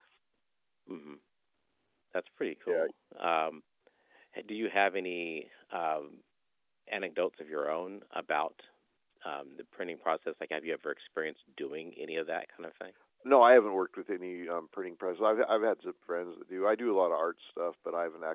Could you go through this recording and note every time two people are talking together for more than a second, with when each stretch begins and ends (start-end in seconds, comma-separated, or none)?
none